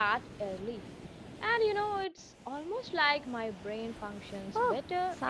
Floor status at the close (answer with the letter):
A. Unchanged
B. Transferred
B